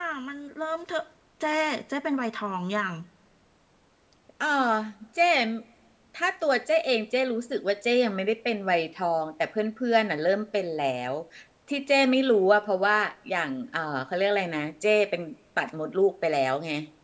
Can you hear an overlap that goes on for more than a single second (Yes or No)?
No